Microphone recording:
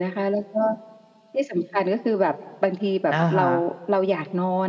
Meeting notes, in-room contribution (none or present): present